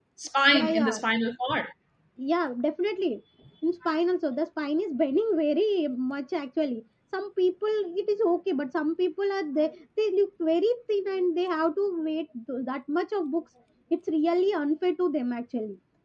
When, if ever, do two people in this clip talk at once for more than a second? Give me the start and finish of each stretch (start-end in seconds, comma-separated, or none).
none